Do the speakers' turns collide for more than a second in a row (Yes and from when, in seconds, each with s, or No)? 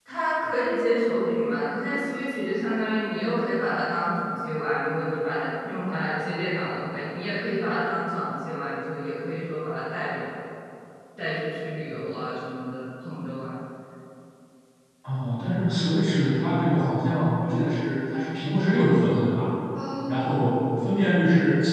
No